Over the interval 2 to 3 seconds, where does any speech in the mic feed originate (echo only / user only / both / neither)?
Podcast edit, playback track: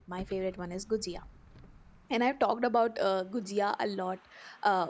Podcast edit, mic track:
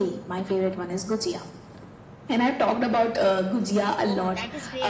echo only